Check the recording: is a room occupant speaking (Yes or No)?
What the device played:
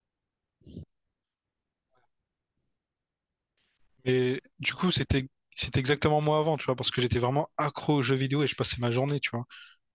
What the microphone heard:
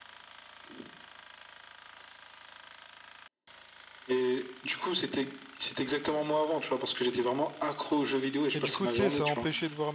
Yes